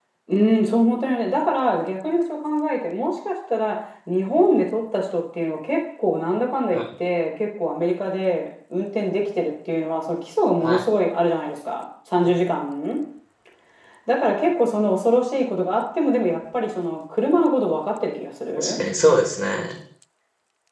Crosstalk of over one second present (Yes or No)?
No